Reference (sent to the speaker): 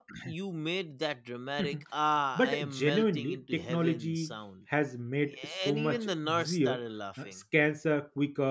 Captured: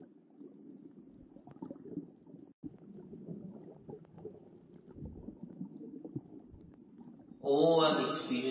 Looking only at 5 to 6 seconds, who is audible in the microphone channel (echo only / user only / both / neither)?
neither